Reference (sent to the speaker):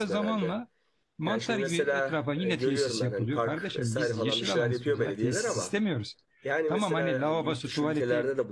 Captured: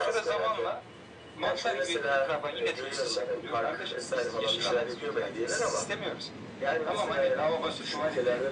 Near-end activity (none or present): none